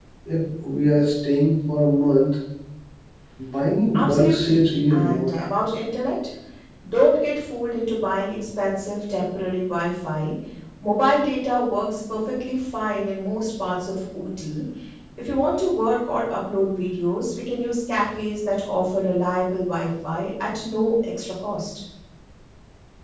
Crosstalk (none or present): present